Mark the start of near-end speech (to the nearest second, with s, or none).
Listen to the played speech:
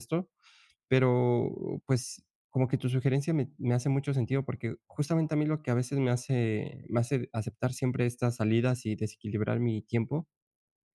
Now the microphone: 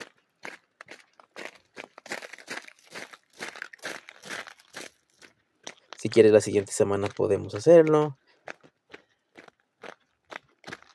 6 s